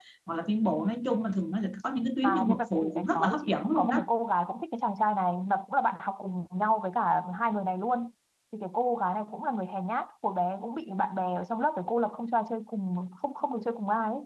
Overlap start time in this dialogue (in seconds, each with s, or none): 2.2 s